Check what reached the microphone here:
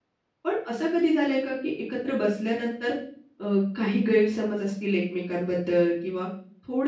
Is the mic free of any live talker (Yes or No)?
No